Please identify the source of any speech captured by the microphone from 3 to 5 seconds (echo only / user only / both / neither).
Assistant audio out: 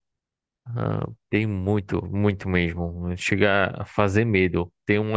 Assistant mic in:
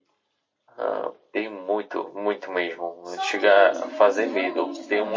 both